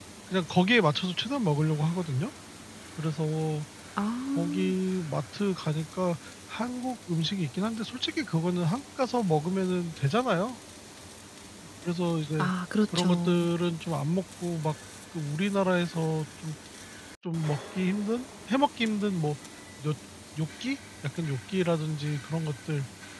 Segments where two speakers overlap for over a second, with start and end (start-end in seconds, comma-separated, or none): none